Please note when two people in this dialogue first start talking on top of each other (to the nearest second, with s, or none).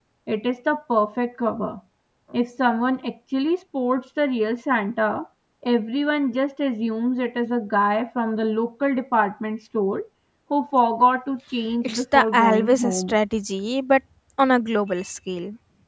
12 s